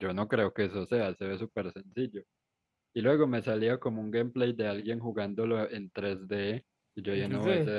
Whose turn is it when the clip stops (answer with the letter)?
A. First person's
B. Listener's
A